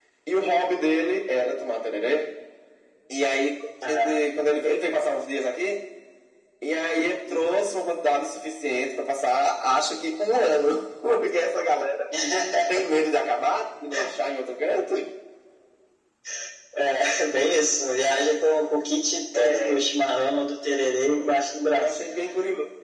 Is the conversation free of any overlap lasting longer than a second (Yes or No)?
Yes